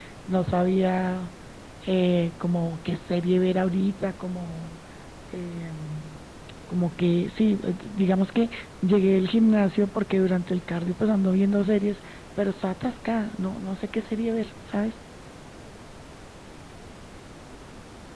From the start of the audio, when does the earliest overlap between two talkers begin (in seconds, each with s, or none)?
none